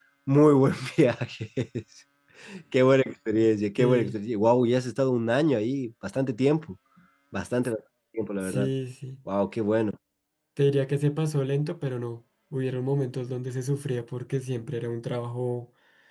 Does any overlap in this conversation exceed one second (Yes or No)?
No